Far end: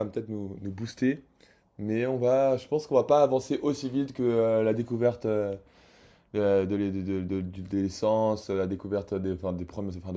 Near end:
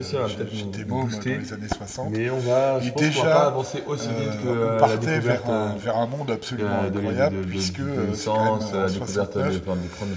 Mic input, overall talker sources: both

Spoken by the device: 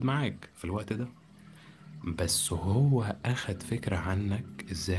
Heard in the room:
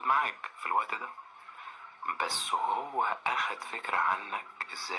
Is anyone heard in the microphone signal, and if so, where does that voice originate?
echo only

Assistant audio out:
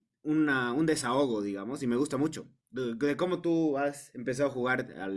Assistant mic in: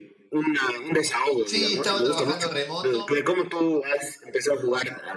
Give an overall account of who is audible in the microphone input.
both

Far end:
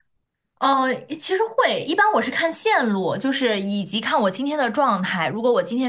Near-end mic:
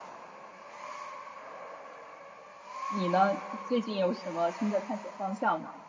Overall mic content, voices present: user only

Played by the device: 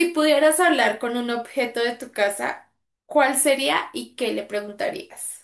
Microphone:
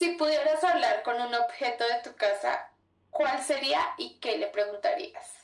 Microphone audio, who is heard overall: echo only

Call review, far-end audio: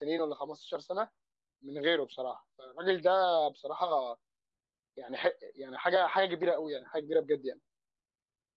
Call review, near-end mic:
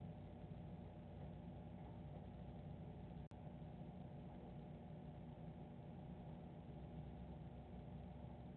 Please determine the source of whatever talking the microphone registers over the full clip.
neither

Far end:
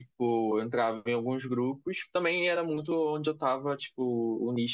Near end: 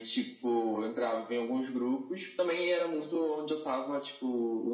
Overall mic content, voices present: echo only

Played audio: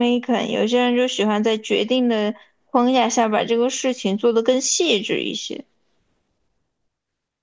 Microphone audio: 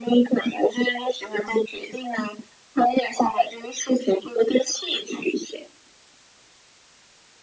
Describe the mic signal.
echo only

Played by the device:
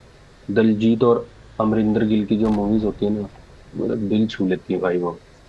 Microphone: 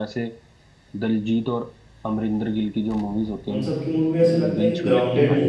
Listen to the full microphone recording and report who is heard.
both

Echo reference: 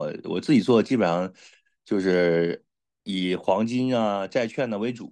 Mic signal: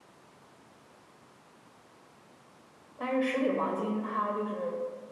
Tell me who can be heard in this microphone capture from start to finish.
user only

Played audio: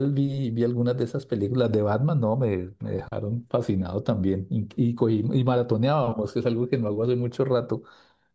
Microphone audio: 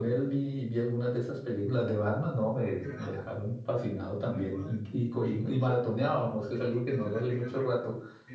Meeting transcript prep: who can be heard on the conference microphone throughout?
both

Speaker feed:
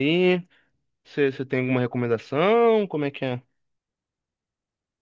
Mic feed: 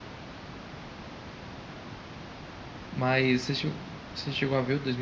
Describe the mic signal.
user only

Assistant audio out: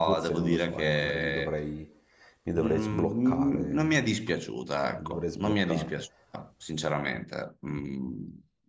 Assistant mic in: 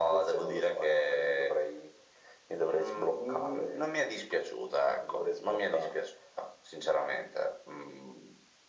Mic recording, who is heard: echo only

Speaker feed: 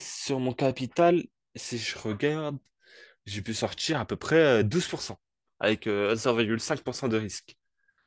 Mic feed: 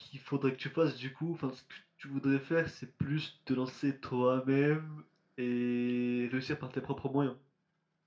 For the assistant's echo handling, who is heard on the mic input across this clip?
user only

